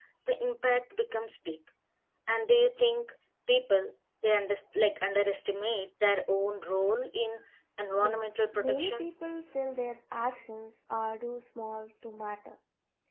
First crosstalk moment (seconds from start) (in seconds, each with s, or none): 7.9 s